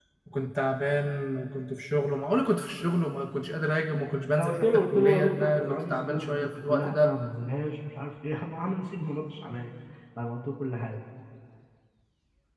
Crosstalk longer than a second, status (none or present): present